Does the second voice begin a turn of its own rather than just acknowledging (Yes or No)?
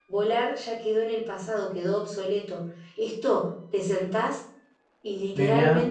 No